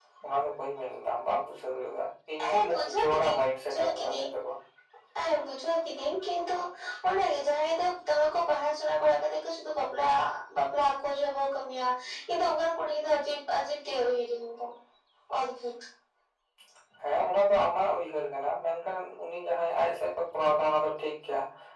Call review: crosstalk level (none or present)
present